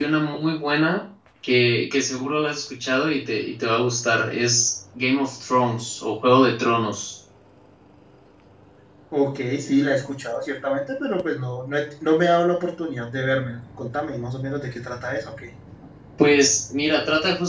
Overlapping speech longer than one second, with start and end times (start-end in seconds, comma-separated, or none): none